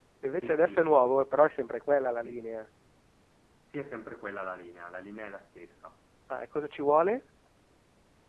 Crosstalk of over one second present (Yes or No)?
No